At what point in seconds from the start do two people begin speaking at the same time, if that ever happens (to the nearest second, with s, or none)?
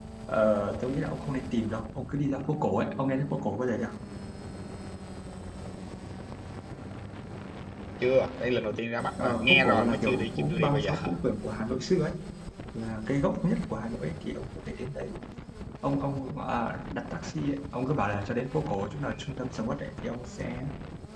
9 s